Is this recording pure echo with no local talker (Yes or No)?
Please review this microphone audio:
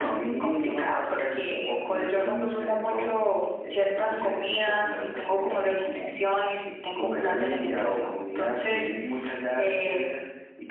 Yes